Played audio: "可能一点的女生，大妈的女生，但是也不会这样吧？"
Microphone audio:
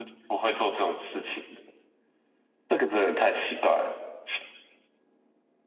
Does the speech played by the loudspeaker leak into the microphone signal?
No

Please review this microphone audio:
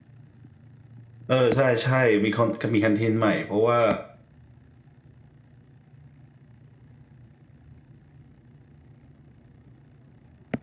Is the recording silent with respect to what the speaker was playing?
Yes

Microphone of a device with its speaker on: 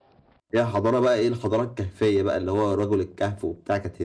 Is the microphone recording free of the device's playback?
Yes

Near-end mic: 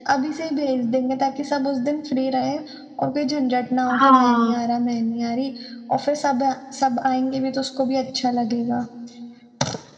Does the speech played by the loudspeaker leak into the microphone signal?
Yes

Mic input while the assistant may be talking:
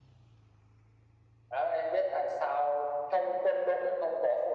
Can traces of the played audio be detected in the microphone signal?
Yes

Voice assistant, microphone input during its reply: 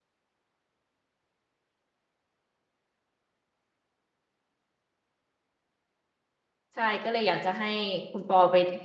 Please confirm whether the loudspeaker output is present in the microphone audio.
No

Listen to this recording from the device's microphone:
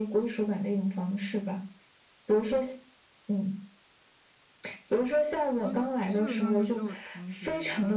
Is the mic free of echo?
No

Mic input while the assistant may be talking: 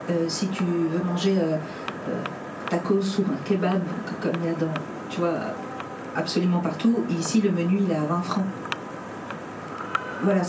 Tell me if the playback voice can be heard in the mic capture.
No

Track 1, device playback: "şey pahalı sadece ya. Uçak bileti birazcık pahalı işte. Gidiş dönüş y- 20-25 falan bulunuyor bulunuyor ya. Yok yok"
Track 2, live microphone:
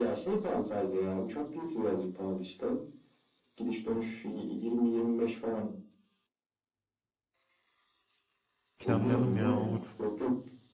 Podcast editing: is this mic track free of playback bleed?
No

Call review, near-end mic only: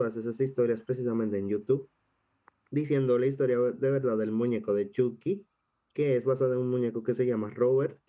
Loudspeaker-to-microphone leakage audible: No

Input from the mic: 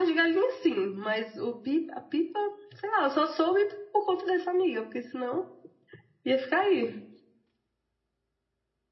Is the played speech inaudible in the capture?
Yes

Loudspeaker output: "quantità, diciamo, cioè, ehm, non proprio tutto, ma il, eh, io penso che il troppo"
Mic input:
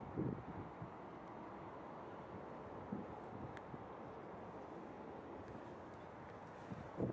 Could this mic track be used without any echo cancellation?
Yes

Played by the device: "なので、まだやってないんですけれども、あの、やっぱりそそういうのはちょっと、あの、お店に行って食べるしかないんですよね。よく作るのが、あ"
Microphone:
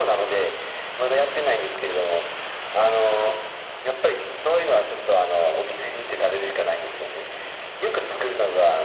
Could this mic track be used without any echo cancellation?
No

